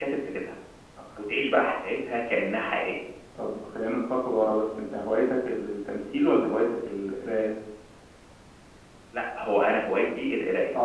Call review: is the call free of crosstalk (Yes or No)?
Yes